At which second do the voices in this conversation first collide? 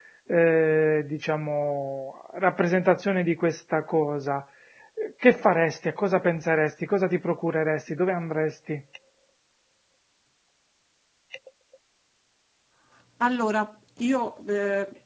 none

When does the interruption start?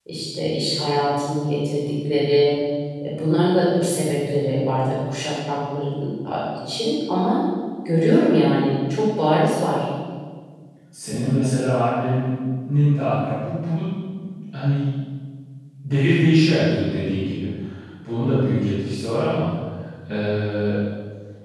none

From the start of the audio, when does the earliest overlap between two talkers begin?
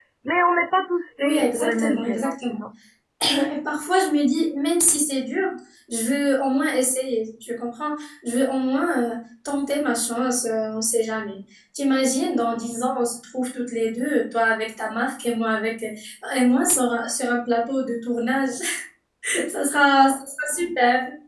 1.2 s

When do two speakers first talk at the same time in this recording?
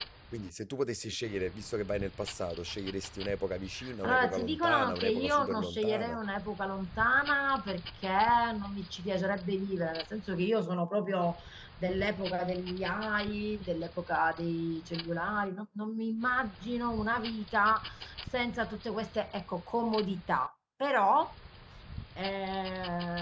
3.8 s

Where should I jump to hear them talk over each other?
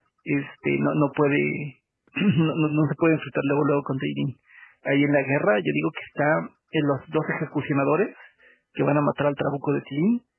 none

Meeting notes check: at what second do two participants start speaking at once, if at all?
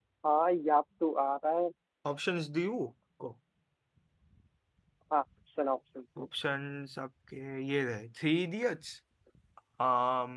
none

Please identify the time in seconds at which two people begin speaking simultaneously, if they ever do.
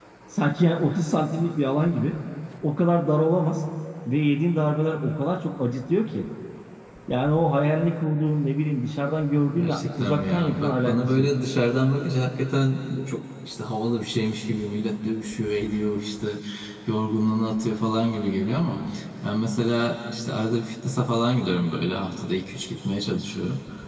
9.6 s

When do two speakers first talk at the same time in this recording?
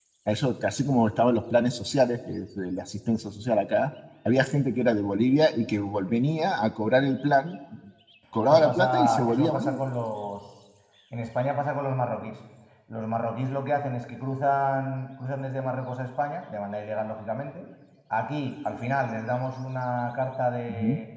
8.5 s

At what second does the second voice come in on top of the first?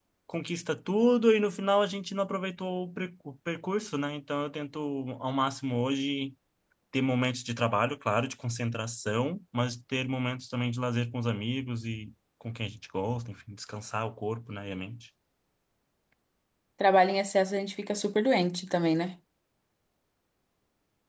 none

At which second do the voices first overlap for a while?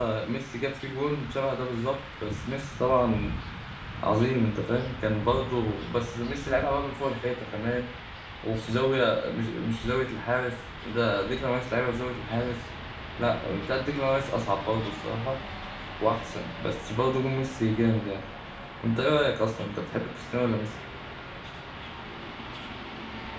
none

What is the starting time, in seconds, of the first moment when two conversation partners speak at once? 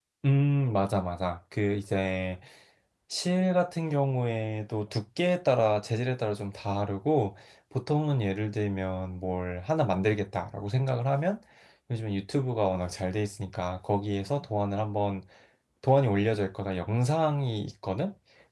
none

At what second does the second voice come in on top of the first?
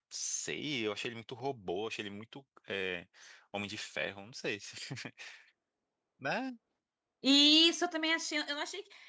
none

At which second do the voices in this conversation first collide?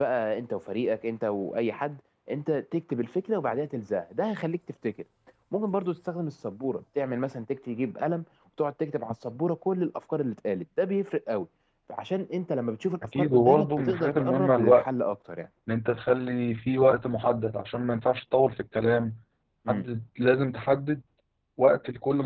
13.0 s

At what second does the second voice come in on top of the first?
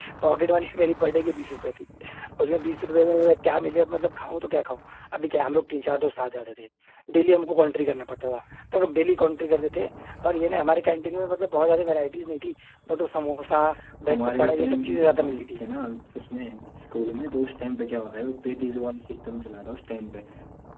14.1 s

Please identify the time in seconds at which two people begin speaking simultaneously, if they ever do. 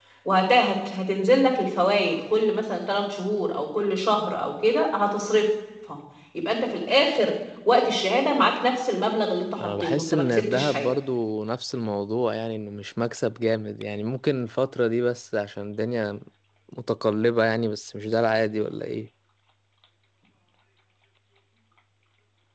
9.6 s

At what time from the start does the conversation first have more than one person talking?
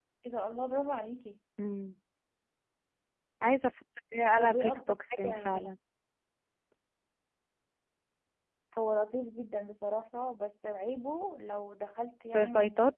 4.4 s

